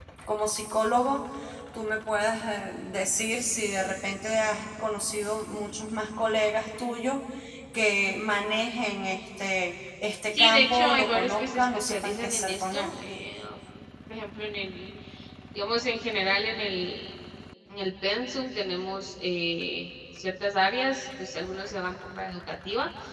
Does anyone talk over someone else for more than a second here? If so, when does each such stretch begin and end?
10.4-12.9

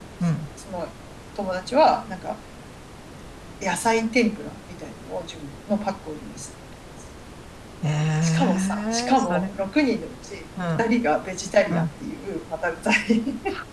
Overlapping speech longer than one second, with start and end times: 8.2-9.5

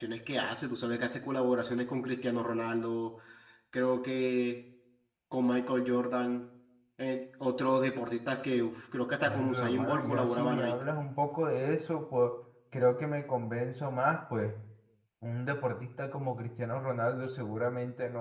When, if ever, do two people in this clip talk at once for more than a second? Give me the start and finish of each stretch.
9.2-10.8

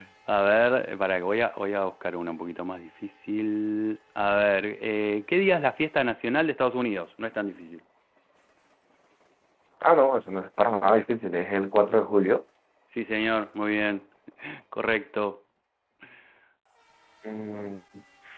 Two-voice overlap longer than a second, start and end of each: none

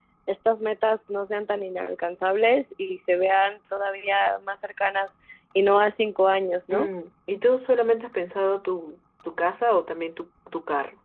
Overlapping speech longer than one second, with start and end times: none

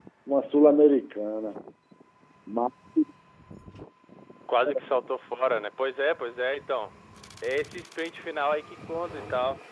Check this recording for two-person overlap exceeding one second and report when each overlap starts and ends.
none

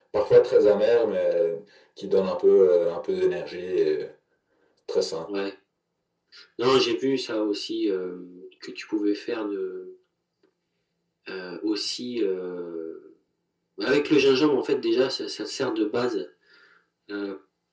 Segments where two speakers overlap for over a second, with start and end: none

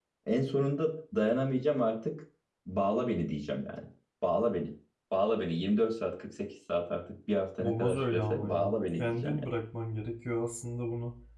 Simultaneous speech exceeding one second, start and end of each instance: 7.6-9.5

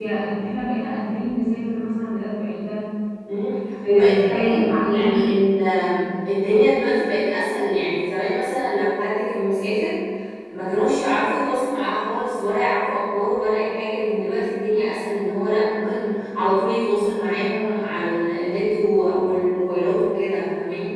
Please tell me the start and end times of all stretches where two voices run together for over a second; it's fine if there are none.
3.9-5.1

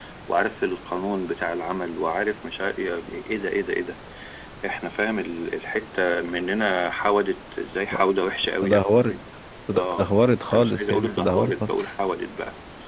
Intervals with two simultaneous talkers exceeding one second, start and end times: 10.5-11.7

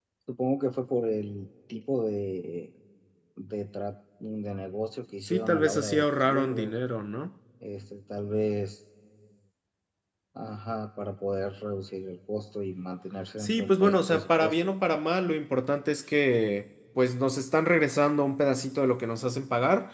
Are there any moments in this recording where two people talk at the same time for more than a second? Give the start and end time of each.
5.2-6.8, 13.4-14.7

